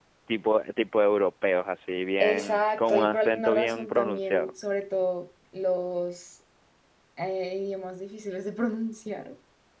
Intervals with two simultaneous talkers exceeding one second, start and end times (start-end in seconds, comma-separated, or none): 2.2-4.5